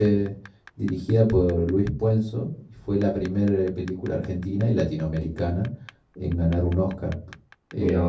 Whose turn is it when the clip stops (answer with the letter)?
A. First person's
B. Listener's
A